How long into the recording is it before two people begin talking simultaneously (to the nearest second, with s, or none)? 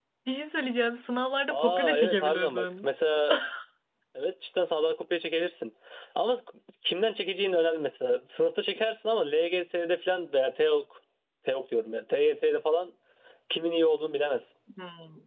2 s